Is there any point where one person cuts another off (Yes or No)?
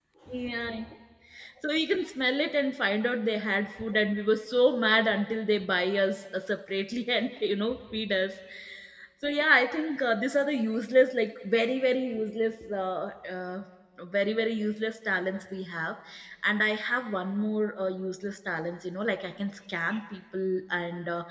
No